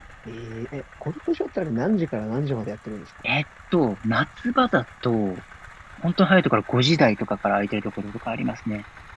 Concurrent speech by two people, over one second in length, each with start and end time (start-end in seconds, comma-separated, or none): none